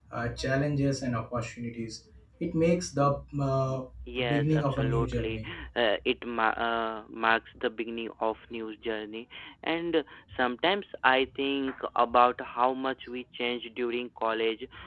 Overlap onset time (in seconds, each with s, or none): 4.2 s